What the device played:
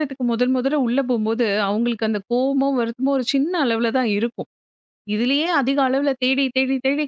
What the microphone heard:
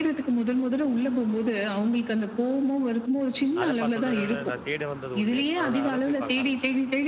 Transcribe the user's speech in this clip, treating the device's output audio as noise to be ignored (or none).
அத பார்த்தோனே நான் தேட வந்தது ஒண்ணு. அப்புறம் நான் அத போய் பார்க்க ஆரம்பிச்சுட்டேன்.